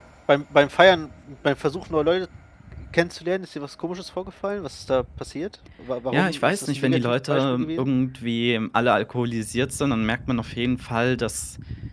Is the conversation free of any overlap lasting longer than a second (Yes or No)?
No